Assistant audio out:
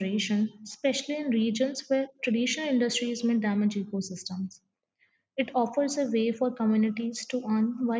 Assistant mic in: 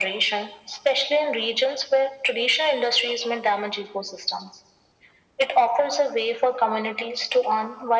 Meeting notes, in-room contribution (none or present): none